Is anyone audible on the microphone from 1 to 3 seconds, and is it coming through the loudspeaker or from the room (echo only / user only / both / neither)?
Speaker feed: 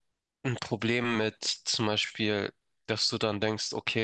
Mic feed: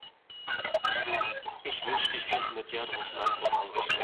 both